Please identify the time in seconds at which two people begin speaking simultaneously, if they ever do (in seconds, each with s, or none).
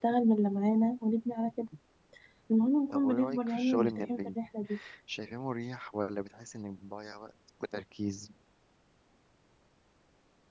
2.9 s